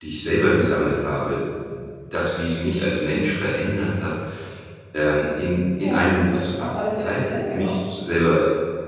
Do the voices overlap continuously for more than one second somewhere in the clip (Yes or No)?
Yes